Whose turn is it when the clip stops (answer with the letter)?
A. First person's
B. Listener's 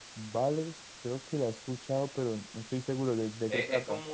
B